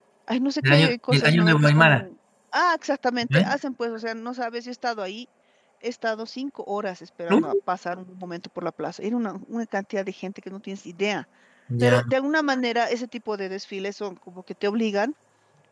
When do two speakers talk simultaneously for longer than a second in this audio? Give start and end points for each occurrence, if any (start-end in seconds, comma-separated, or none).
0.6-2.0